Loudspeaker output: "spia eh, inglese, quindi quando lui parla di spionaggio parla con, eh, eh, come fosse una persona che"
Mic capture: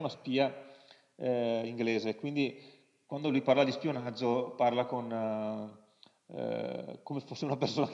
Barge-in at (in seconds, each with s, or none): none